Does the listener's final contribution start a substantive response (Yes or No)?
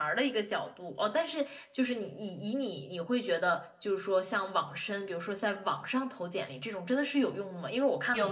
No